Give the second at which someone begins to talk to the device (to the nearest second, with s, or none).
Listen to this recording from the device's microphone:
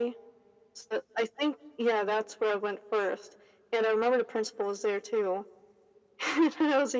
none